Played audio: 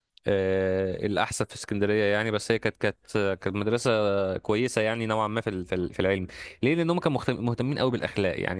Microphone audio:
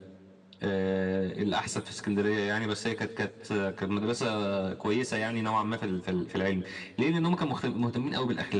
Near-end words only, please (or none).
none